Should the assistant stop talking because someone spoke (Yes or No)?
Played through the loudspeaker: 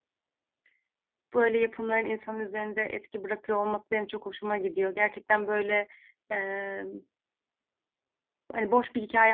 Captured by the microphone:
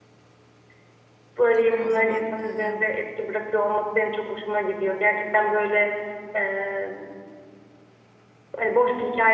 Yes